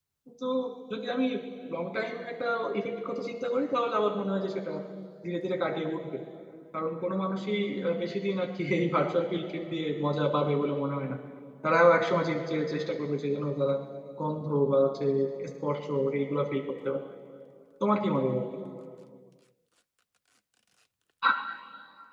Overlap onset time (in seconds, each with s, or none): none